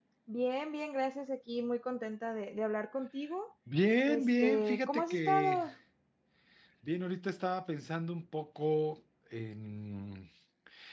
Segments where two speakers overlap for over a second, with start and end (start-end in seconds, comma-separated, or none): 4.1-5.6